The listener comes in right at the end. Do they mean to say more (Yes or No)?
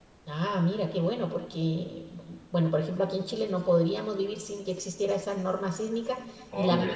No